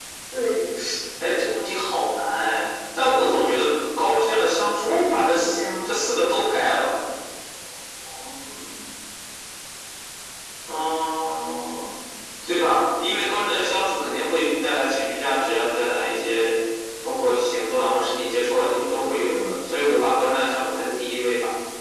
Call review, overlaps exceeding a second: present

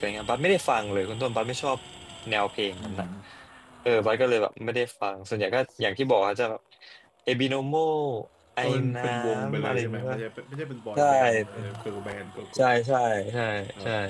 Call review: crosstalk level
present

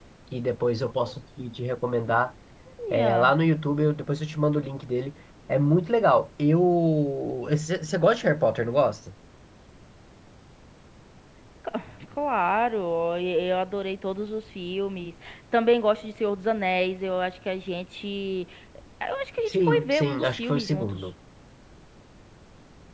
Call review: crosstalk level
present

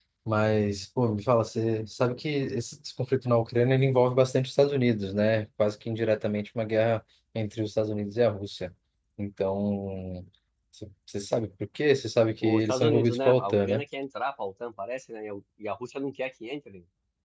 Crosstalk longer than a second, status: present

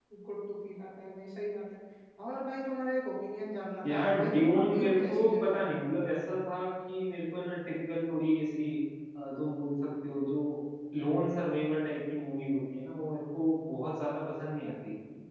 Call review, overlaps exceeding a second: present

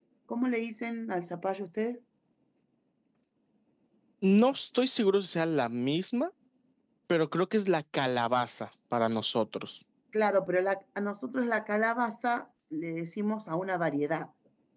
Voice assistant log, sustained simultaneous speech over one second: none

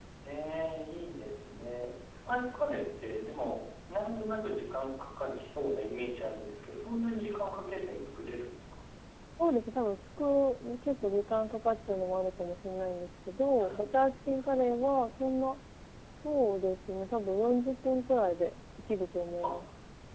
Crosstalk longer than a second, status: none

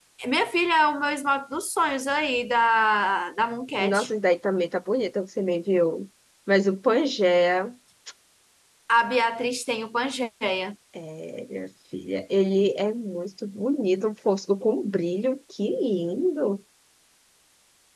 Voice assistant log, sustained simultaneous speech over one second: none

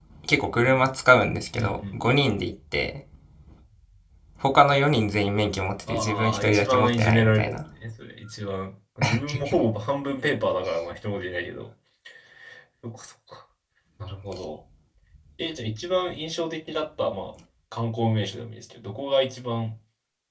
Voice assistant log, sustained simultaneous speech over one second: present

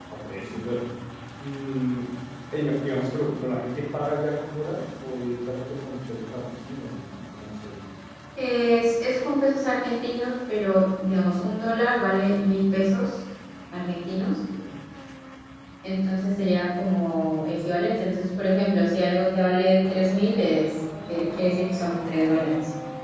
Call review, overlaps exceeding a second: none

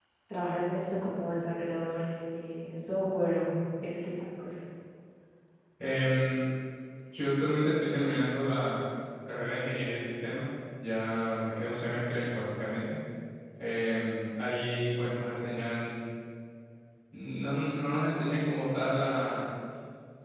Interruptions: none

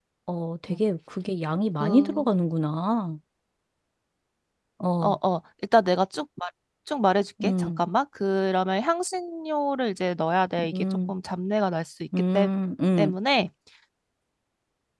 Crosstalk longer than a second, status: none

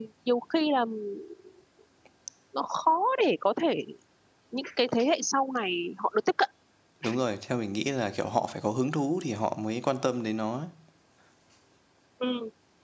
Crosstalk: none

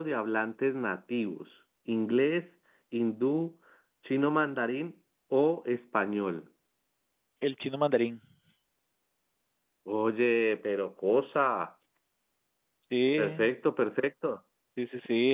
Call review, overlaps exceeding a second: none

